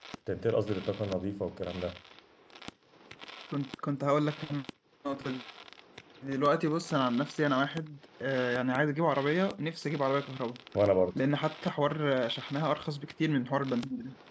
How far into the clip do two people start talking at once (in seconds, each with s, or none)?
none